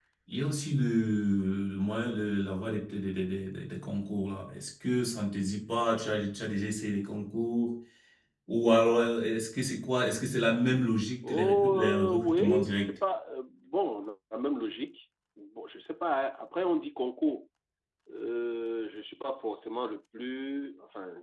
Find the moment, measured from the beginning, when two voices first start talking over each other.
11.2 s

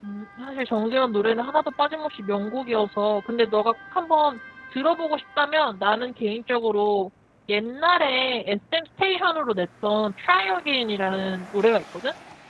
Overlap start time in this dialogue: none

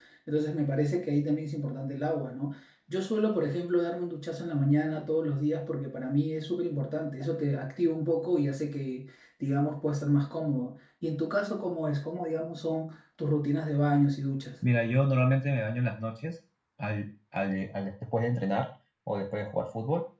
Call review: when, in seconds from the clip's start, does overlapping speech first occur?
none

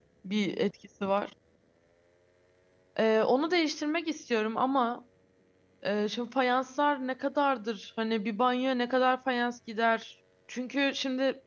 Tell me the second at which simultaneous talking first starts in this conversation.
none

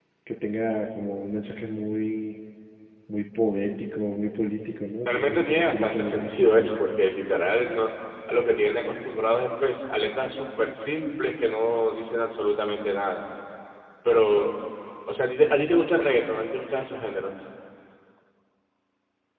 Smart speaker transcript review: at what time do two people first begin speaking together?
5.0 s

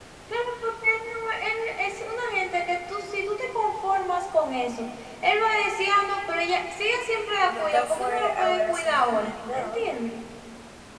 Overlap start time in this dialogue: 7.5 s

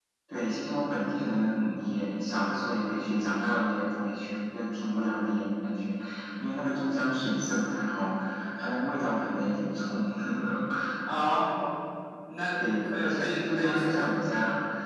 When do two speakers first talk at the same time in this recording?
12.6 s

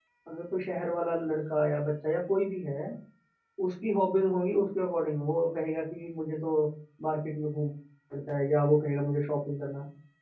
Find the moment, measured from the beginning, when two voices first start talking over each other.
none

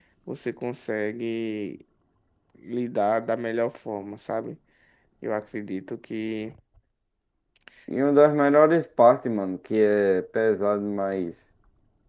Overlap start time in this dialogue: none

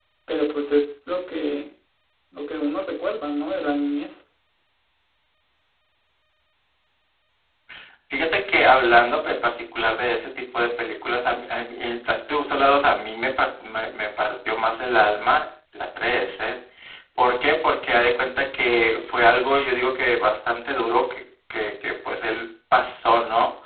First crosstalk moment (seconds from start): none

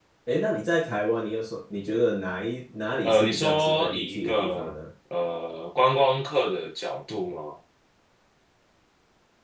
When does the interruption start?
3.0 s

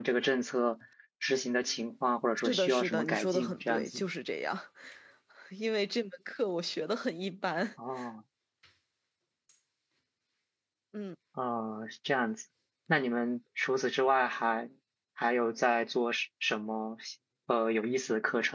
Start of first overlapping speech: 2.4 s

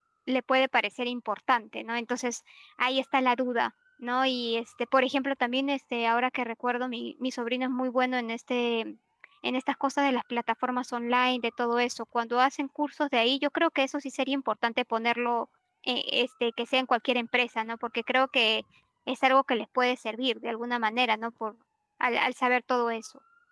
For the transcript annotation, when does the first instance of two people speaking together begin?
none

